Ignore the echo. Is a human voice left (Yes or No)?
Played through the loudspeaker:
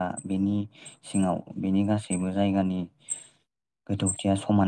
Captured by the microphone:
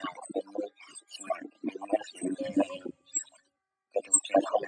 Yes